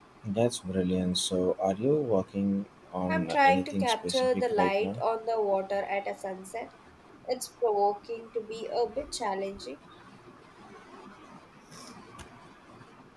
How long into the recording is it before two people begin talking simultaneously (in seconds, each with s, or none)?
3.1 s